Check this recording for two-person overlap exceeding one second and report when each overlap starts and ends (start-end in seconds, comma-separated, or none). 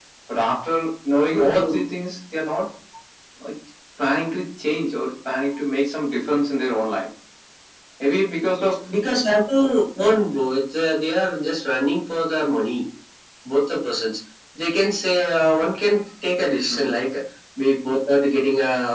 none